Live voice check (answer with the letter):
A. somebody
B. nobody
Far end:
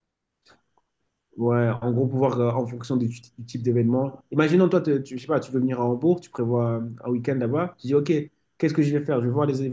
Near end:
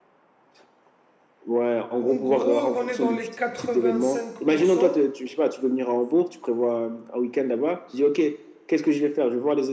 A